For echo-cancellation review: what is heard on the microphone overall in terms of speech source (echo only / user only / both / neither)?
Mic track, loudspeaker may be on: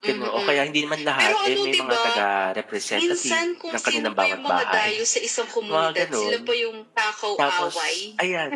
both